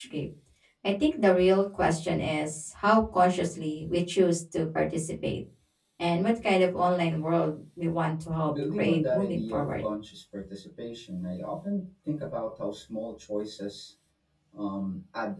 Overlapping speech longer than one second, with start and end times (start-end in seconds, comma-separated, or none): 8.5-9.8